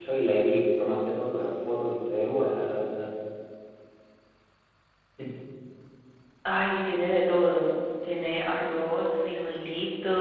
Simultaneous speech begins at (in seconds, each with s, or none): none